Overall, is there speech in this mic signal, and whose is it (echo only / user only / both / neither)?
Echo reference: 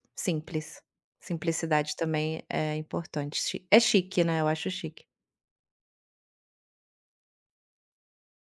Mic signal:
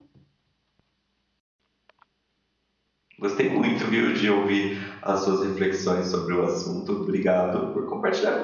user only